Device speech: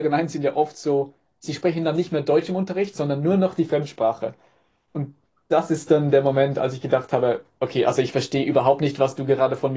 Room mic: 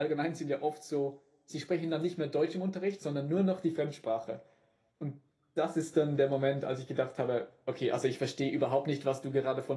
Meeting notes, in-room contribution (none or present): none